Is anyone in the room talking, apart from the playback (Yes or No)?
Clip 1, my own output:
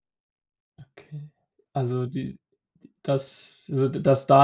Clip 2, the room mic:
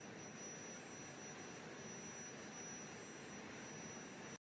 No